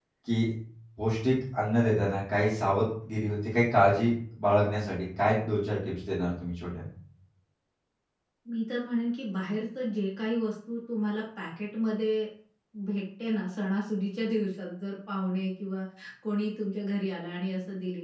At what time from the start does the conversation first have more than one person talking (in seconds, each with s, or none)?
none